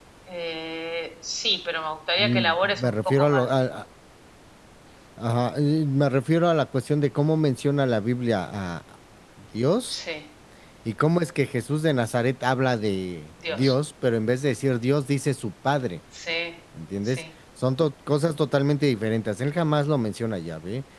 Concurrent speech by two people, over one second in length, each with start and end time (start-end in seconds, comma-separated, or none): 2.2-3.5